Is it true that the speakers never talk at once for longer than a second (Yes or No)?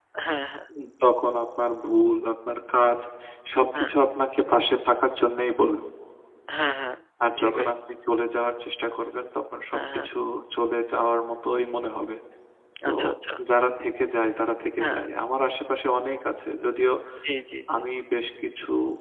Yes